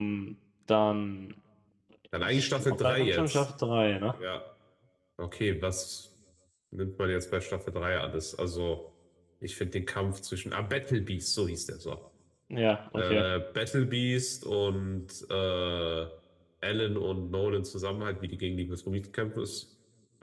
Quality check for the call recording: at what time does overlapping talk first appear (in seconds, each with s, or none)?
2.2 s